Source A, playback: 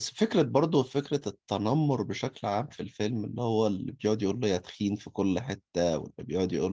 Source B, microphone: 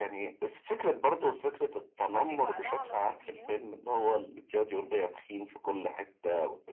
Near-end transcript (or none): بعدين بعدها على طول يموت